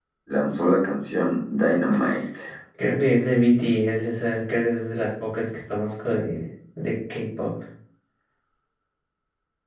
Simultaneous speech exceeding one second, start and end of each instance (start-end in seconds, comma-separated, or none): none